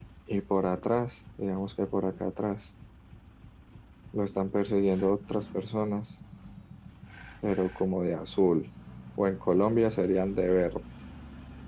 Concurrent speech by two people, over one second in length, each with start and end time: none

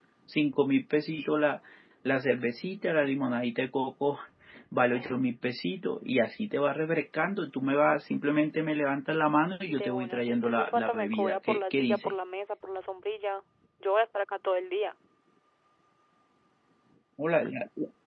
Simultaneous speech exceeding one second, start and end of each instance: 9.7-12.1

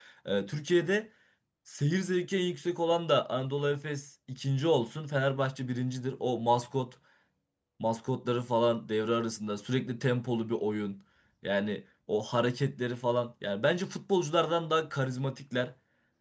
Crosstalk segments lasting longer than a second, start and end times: none

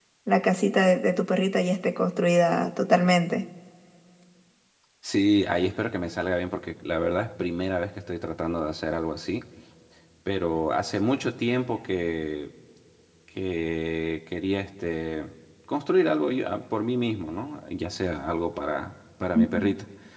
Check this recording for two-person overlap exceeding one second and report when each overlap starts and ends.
none

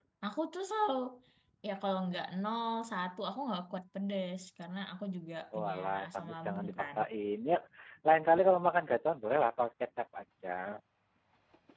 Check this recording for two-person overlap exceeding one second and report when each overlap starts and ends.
5.5-7.0

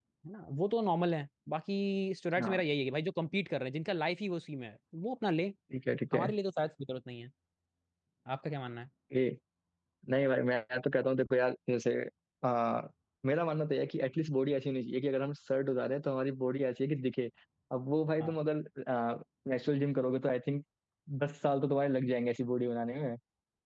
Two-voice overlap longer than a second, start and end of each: none

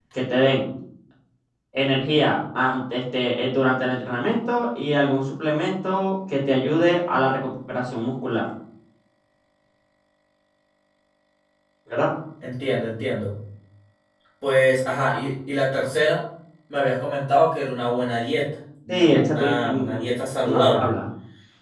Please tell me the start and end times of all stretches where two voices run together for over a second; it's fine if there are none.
18.9-20.9

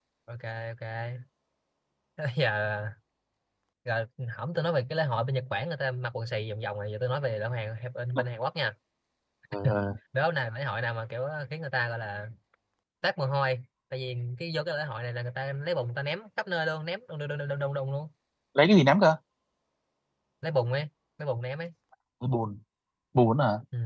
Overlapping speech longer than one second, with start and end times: none

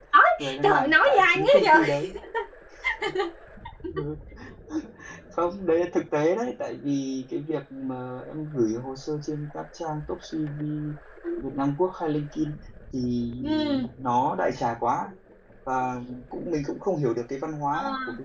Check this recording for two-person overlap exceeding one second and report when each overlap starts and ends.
0.6-2.1

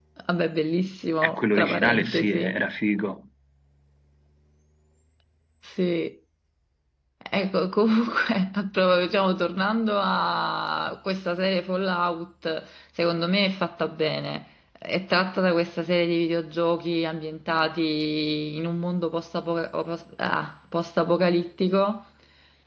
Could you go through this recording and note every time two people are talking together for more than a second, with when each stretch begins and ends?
1.2-2.6

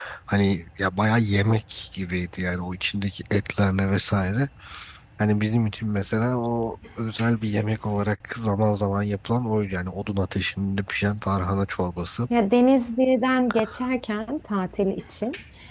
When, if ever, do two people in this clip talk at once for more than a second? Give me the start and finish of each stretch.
none

